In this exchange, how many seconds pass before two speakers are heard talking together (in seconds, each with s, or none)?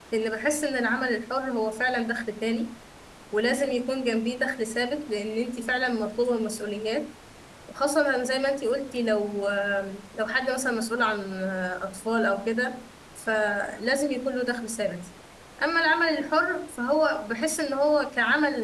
none